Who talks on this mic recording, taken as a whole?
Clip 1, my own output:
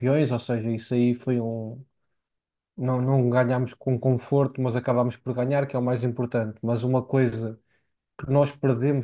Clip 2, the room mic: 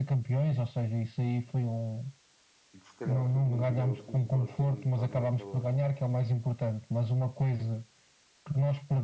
both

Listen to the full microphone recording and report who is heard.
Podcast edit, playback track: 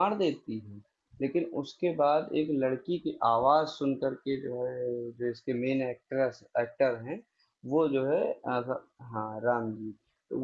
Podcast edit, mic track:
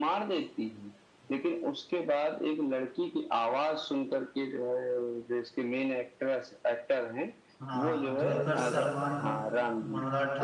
both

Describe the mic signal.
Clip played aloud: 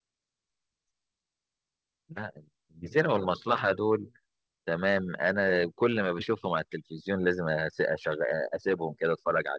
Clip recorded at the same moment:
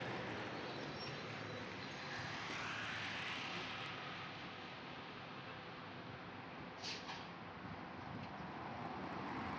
neither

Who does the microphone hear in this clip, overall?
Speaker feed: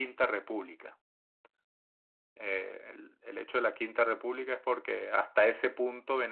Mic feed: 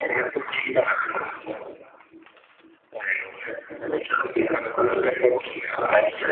echo only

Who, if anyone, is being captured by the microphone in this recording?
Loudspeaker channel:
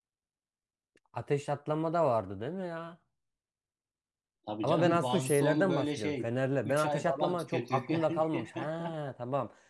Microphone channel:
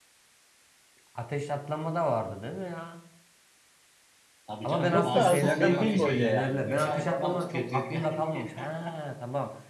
both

